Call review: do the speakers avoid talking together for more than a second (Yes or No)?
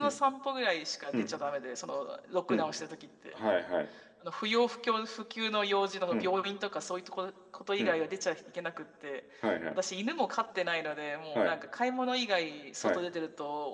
Yes